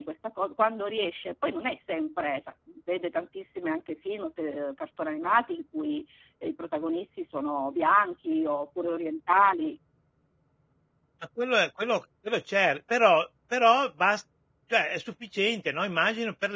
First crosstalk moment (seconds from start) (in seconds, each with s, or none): none